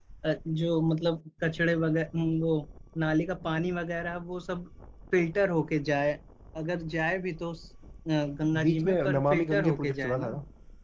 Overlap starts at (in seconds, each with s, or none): 8.5 s